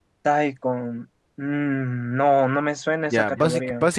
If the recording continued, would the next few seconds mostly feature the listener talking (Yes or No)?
Yes